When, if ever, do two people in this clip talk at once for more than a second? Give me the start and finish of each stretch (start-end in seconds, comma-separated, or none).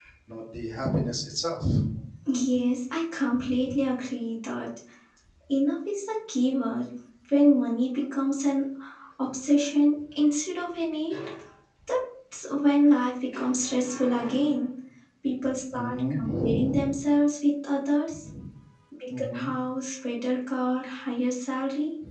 15.7-17.0